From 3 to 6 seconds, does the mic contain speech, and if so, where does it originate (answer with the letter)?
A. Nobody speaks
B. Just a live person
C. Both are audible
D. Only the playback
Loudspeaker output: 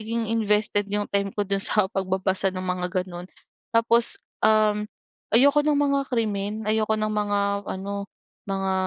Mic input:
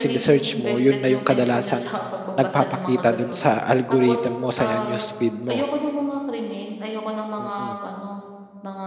C